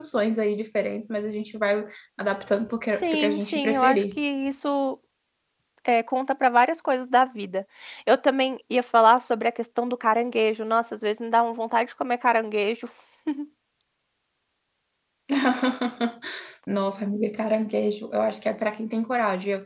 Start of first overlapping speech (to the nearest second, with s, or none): 3 s